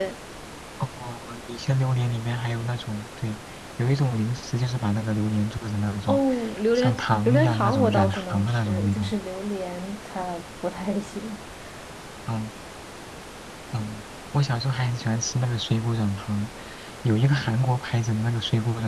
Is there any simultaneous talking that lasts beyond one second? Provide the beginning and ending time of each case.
6.8-9.1

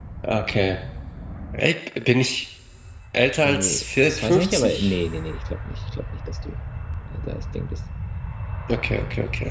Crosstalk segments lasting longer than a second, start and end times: 3.4-5.0

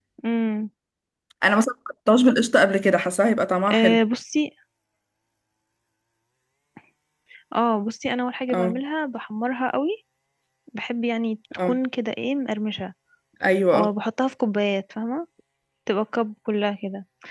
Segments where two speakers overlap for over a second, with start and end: none

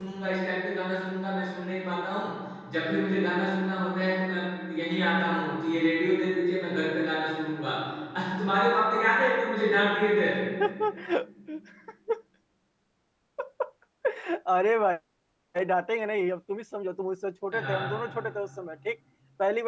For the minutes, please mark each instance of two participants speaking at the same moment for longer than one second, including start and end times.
none

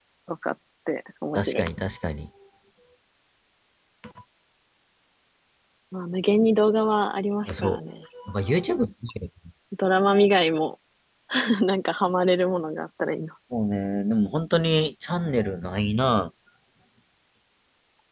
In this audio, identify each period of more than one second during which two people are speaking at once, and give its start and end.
none

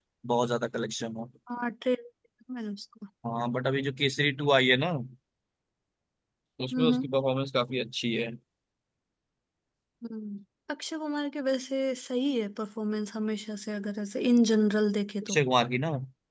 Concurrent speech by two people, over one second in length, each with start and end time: none

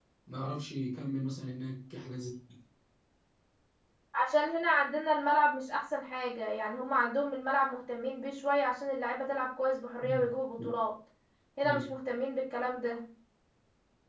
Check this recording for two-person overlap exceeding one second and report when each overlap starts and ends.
none

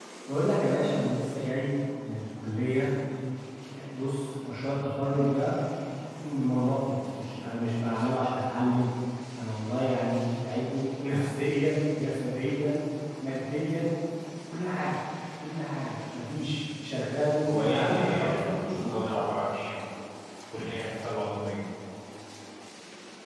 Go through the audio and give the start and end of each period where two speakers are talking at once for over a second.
17.4-18.9

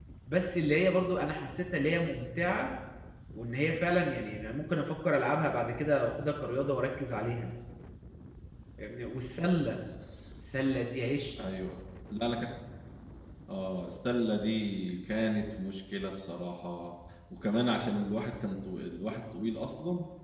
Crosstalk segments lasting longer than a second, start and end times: none

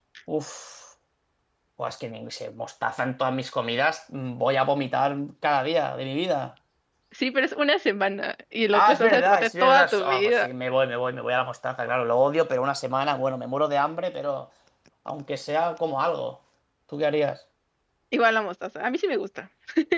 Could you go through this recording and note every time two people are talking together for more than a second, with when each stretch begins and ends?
8.7-10.5

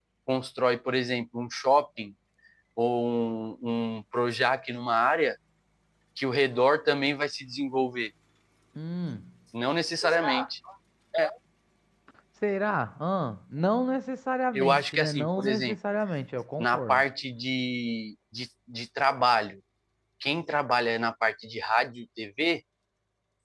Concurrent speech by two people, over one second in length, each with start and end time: 14.6-15.8

